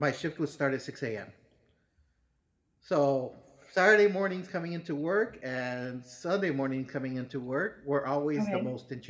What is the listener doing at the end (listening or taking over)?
listening